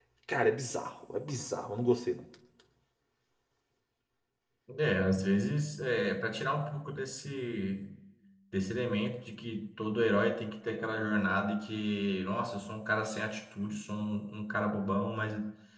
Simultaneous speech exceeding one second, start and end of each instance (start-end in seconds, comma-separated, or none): none